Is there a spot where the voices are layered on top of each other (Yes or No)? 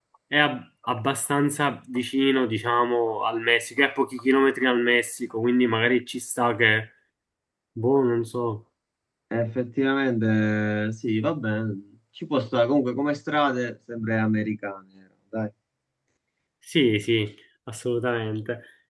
No